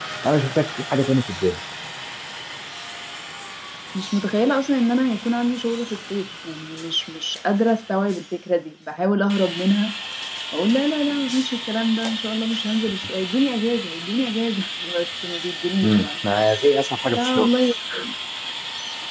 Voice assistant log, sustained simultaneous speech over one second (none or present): none